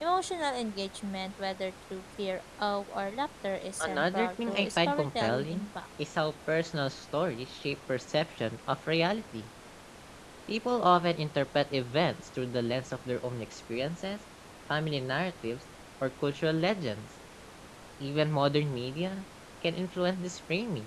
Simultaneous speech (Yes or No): Yes